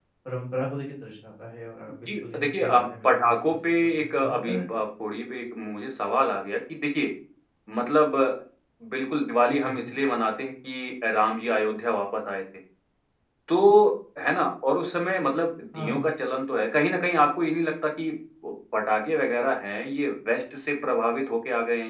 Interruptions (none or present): present